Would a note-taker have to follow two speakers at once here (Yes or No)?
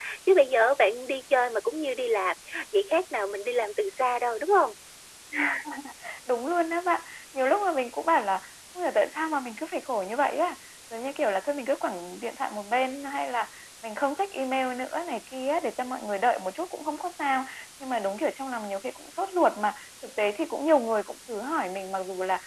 No